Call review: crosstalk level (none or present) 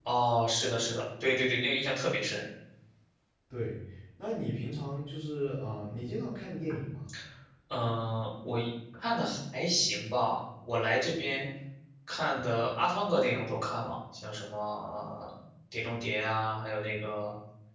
none